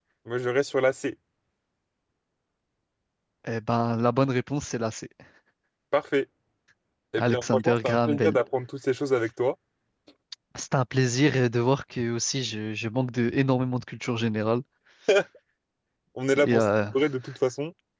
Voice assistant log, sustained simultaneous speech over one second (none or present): present